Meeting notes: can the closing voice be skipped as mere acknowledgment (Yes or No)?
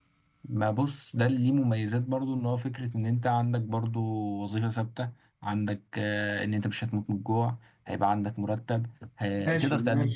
No